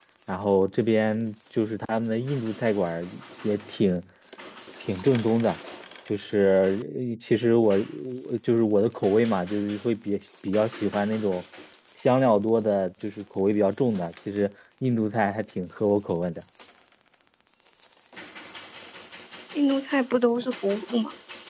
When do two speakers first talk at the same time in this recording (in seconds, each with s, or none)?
none